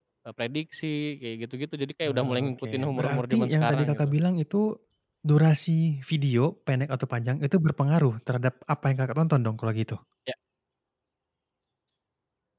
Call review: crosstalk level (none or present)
present